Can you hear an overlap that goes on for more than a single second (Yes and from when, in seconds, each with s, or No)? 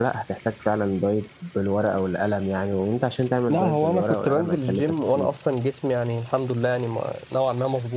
Yes, from 3.5 s